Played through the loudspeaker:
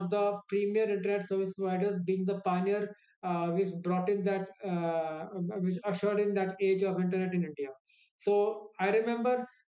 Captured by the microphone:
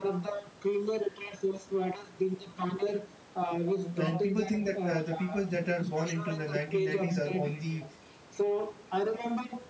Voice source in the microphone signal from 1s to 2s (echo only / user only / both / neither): echo only